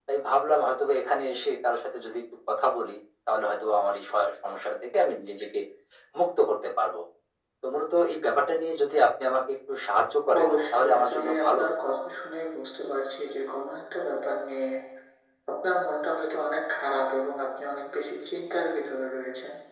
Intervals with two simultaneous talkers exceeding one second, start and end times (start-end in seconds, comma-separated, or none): 10.4-11.7